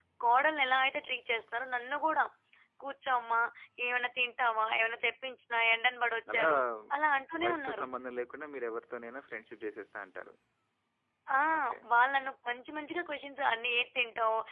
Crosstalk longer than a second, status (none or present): none